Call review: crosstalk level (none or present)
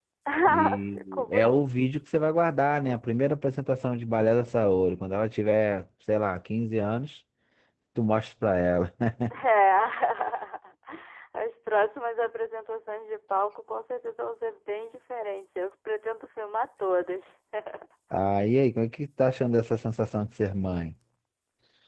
present